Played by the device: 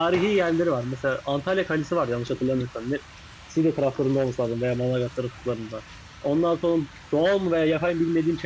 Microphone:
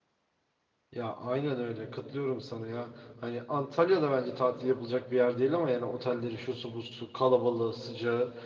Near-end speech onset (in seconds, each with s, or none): 0.9 s